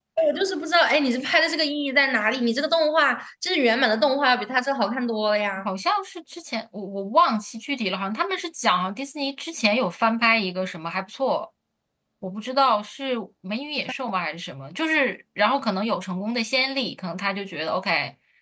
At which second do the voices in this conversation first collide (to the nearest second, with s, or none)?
none